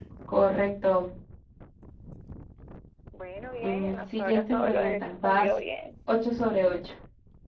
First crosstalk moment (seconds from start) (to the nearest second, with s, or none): 4 s